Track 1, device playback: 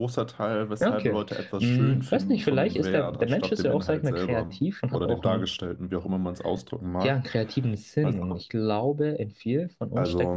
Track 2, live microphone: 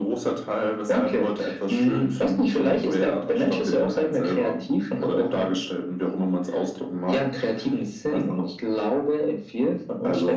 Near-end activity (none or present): none